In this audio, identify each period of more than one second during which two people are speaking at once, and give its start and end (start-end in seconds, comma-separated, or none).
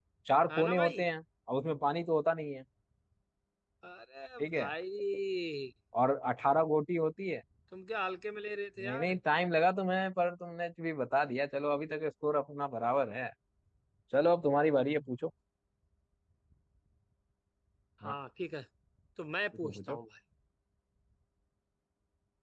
none